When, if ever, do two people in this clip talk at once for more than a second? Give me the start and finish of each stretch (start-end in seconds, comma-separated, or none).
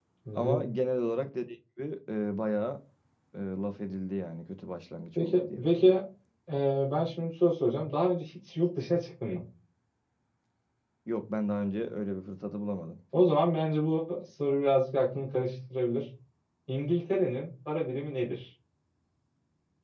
none